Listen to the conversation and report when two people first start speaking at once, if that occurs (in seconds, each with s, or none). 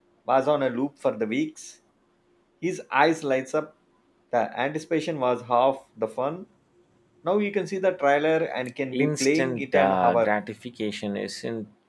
8.9 s